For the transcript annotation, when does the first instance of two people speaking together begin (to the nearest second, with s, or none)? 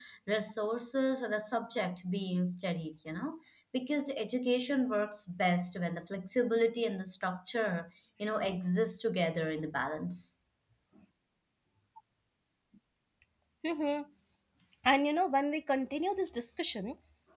none